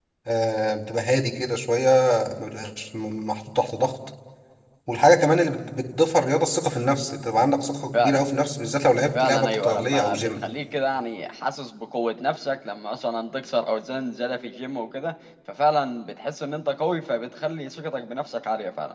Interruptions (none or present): present